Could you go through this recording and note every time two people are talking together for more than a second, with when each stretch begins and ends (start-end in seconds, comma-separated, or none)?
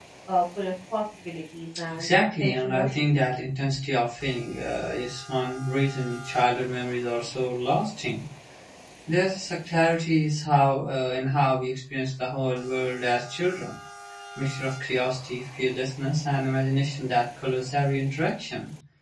1.9-3.2